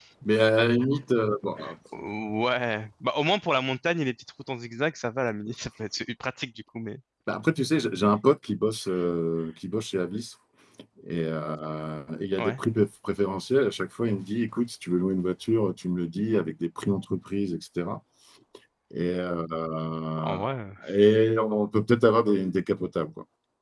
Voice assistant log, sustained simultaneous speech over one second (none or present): none